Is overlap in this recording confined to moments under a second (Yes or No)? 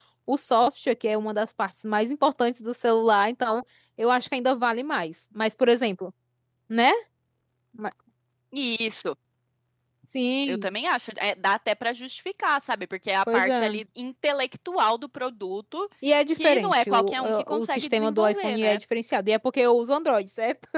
No